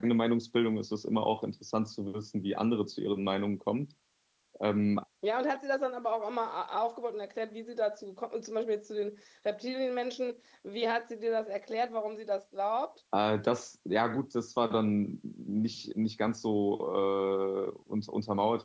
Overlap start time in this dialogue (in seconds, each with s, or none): none